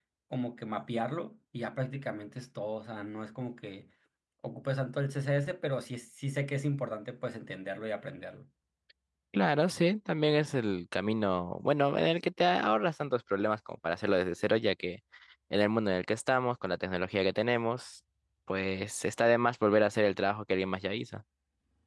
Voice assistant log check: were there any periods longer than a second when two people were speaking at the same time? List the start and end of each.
none

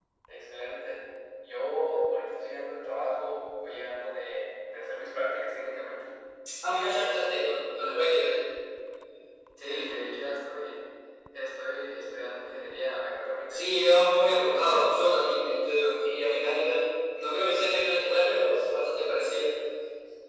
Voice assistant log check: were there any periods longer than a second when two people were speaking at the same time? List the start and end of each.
none

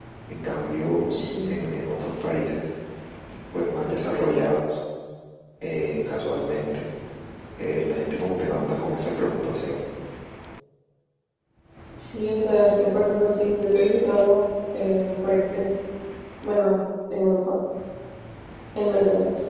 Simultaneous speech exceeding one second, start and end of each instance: none

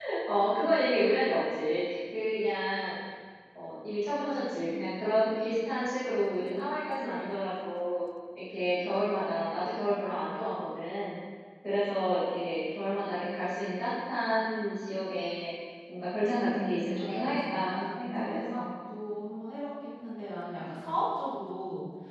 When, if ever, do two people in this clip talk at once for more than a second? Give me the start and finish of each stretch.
16.2-18.6

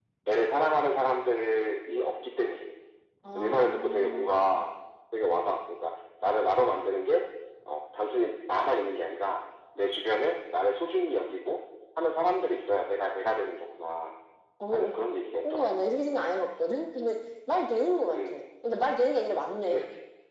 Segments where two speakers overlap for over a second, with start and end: 3.4-4.7

